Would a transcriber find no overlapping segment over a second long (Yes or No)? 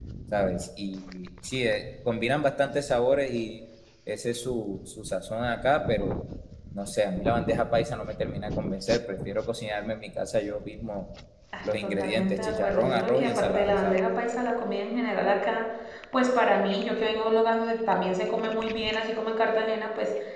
No